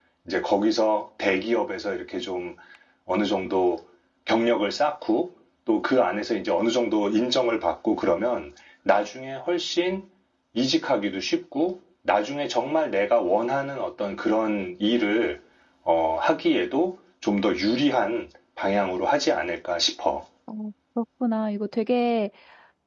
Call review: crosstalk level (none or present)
none